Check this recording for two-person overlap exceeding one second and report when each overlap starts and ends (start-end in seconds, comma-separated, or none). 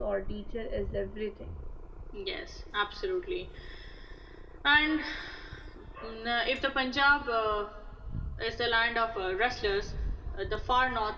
none